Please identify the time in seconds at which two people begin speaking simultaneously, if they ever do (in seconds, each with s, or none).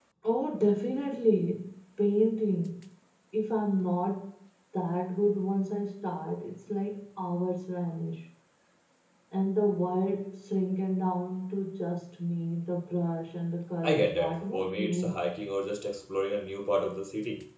13.8 s